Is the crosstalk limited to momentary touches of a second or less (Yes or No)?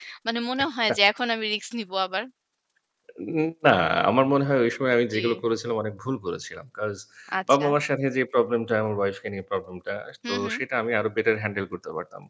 Yes